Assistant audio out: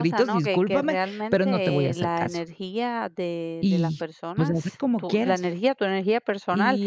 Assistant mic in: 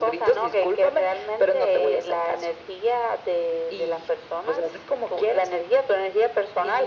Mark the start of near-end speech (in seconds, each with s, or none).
none